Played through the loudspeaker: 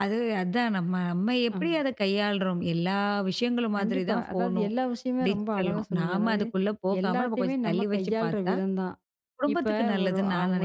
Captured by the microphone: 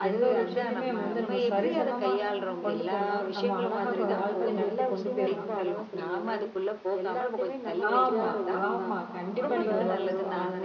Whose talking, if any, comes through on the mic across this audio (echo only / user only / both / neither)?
both